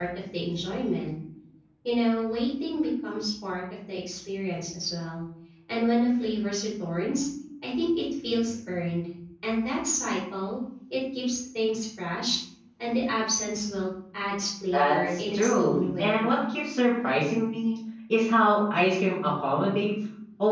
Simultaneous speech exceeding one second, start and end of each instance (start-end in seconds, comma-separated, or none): 14.7-16.3